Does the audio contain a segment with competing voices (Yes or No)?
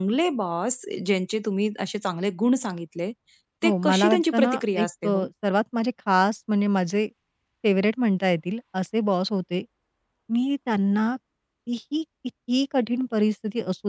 Yes